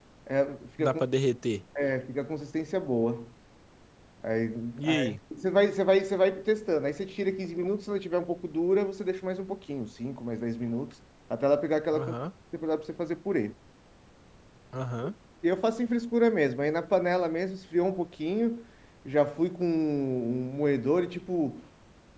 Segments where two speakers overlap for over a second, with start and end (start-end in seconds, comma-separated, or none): none